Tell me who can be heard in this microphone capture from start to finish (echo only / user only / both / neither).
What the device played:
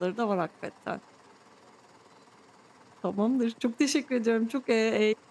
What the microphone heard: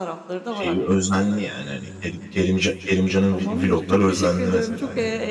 both